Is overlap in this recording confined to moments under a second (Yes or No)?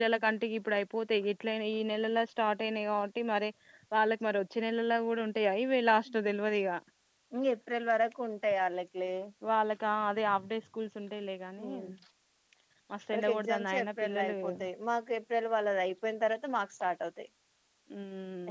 No